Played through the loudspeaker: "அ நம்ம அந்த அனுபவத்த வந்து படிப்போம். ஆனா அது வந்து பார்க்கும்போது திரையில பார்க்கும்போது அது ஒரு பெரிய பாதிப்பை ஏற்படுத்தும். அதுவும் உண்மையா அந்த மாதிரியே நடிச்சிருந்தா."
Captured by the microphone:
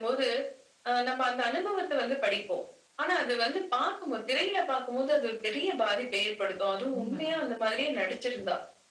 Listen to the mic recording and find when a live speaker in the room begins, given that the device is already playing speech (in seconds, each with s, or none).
7.0 s